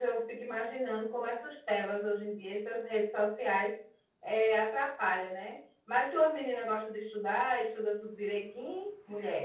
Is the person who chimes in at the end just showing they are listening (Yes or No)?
No